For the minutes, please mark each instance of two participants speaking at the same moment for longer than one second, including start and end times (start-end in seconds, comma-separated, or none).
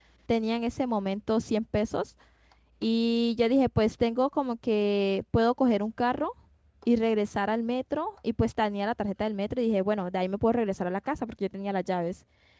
none